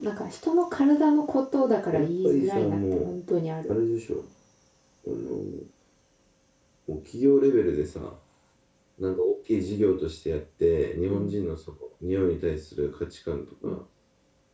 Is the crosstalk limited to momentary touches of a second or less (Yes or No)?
No